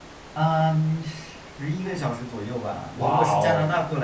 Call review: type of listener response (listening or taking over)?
listening